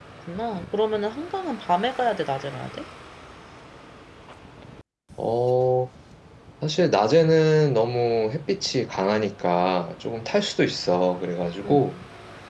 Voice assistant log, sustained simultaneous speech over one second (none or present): none